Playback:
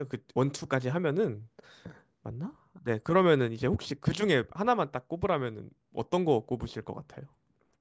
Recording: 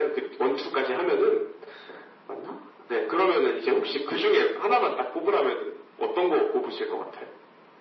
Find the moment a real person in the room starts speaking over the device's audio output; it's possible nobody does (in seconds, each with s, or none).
none